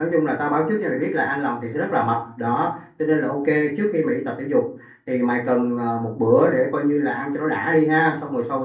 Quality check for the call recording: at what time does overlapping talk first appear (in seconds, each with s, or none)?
none